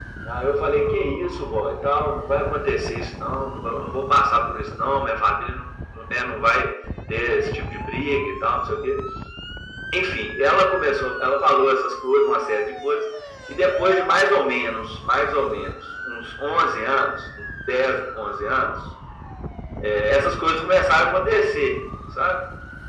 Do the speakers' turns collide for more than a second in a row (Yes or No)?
No